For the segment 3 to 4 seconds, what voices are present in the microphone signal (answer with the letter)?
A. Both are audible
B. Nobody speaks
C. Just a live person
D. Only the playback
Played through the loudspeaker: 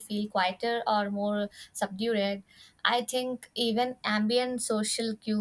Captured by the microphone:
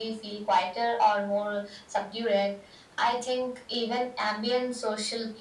D